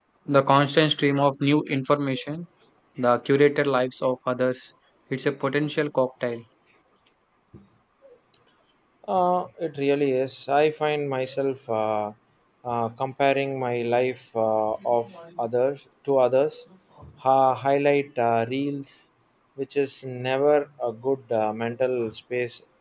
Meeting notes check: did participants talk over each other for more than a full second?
No

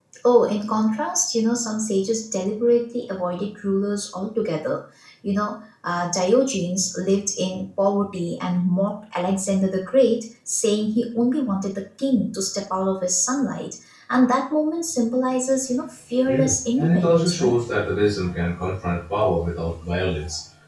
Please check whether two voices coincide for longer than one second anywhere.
Yes, from 16.2 s

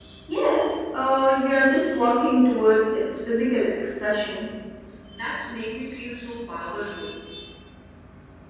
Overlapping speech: No

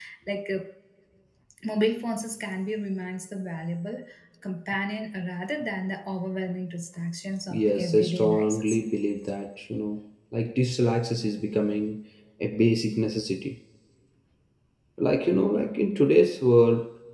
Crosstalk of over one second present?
Yes, from 7.5 s

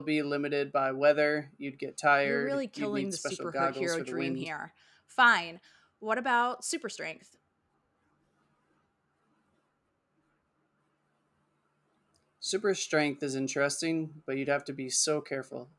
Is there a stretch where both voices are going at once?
Yes, from 2.2 s

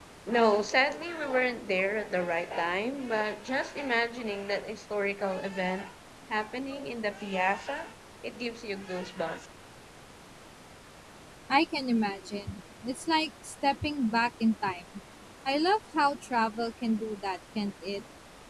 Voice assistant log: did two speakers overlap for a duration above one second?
No

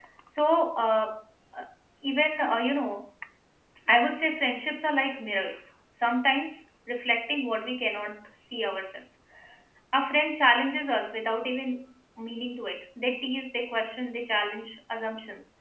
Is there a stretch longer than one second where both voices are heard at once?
No

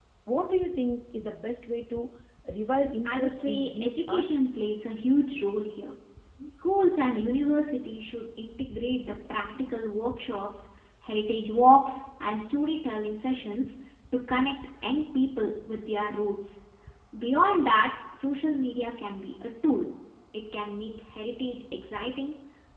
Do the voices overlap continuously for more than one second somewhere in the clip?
Yes, from 3.0 s

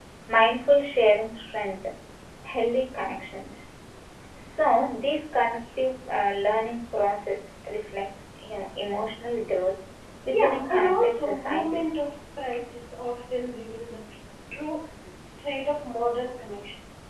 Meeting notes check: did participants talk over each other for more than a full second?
Yes, from 10.3 s

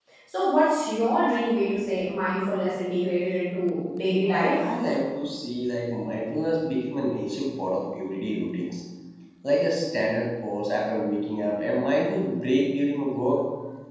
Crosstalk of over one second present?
No

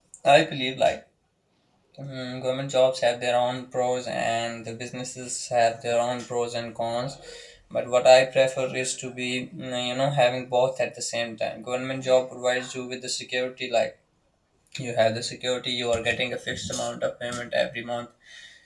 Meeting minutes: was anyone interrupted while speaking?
No

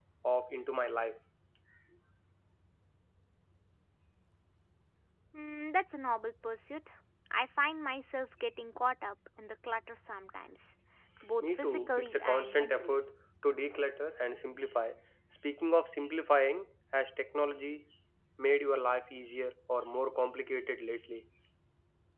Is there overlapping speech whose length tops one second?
Yes, from 11.4 s

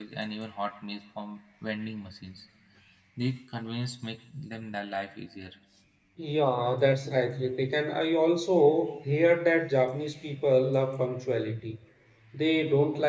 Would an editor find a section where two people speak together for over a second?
No

